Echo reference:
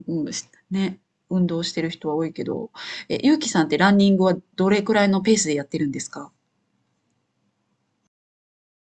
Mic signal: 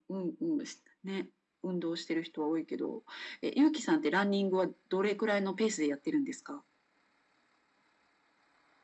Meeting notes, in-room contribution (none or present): none